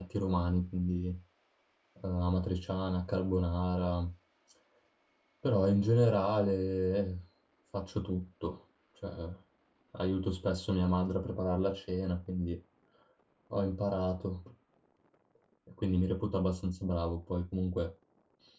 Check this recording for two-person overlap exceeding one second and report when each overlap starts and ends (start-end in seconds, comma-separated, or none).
none